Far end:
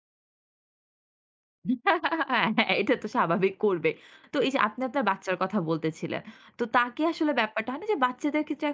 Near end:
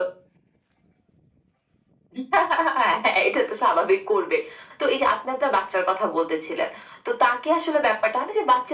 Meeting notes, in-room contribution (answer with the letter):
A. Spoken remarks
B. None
B